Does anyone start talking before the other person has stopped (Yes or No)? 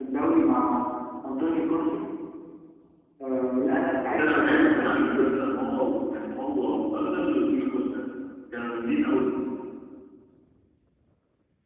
Yes